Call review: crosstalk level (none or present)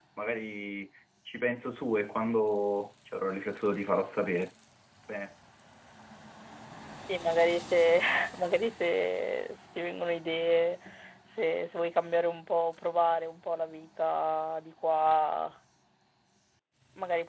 none